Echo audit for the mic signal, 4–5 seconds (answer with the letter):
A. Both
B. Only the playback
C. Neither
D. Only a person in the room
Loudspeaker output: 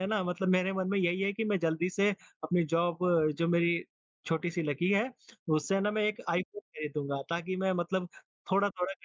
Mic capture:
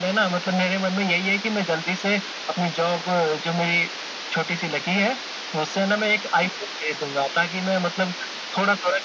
B